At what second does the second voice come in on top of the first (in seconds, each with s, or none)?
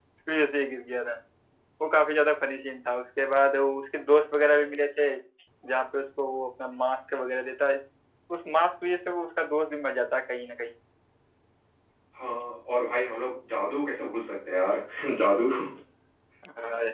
none